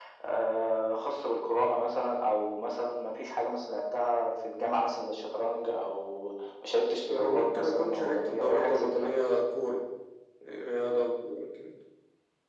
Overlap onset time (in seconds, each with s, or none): 7.1 s